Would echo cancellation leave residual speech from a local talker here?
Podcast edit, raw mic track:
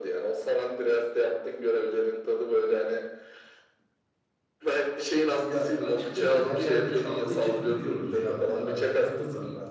Yes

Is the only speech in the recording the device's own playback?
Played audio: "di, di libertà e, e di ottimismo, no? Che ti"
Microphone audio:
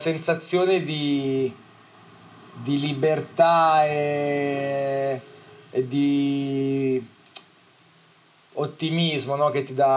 Yes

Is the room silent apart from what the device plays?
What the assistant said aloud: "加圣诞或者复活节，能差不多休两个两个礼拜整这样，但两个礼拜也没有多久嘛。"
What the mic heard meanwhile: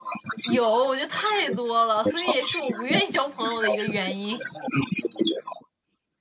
No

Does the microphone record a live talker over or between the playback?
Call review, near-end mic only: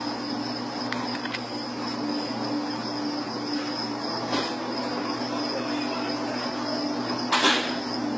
No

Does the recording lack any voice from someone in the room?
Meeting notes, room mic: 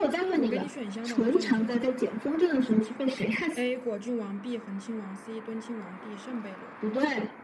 No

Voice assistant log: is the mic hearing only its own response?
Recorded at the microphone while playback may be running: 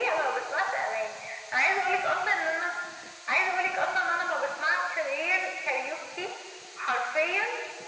Yes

